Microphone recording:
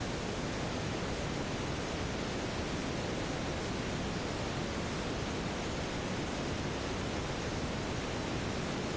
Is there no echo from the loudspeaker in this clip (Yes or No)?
Yes